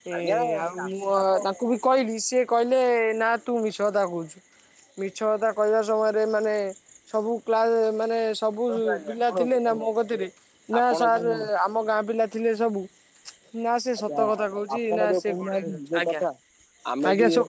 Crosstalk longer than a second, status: present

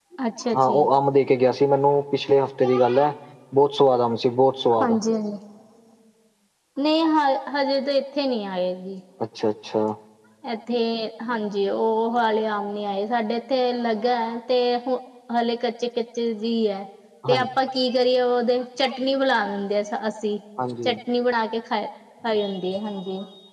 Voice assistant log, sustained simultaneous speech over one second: none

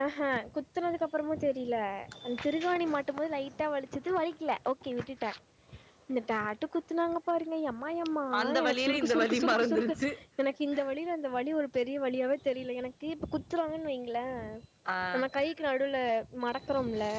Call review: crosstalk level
present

